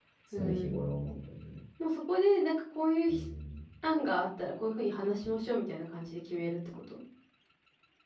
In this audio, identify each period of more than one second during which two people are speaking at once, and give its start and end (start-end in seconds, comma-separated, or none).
none